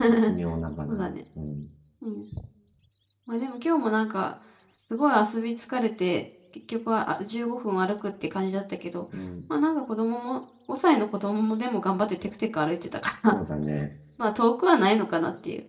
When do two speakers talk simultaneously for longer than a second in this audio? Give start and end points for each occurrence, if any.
none

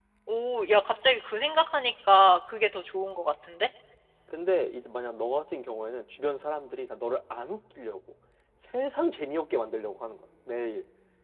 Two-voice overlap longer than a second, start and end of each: none

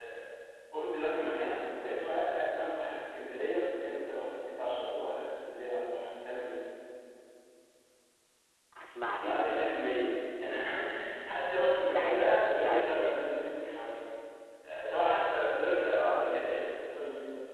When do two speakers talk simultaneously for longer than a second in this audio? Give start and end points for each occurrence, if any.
11.8-13.2

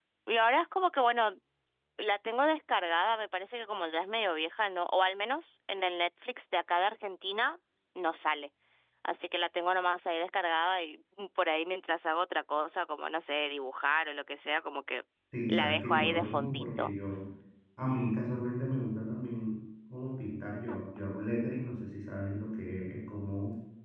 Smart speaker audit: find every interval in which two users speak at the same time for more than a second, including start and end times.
15.5-16.9

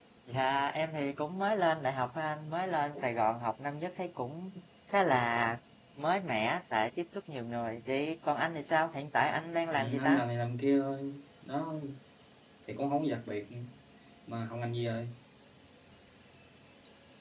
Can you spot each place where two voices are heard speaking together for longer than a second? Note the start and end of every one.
none

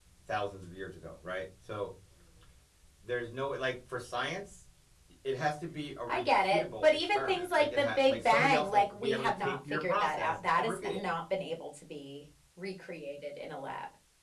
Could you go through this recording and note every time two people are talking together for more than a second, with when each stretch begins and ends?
6.1-11.0

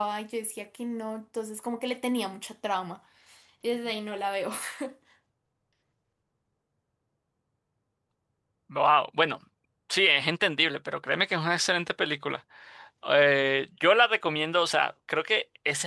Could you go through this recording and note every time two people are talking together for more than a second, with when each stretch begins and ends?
none

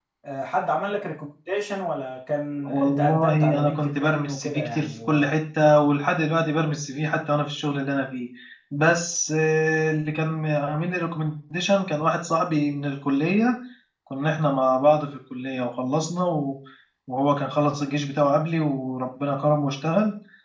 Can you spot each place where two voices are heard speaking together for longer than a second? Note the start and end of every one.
2.6-5.3

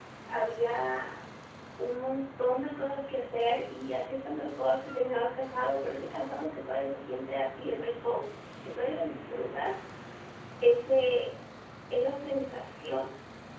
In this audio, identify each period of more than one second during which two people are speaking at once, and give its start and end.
none

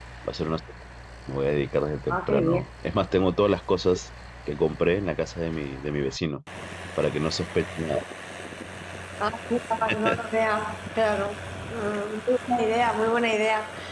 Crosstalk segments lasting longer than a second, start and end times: none

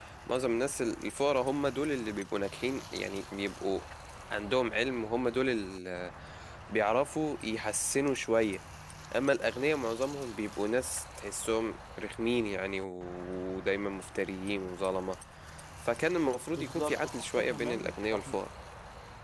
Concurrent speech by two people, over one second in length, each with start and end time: 16.6-18.3

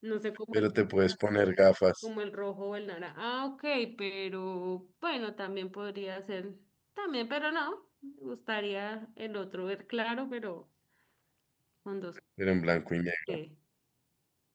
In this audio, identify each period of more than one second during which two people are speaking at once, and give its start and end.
none

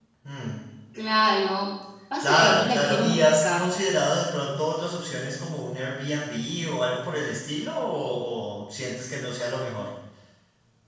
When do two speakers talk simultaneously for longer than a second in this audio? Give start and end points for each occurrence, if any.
2.2-3.6

